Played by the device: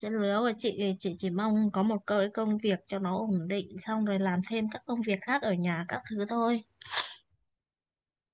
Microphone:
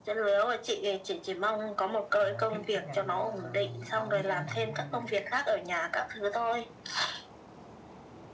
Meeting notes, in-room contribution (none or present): present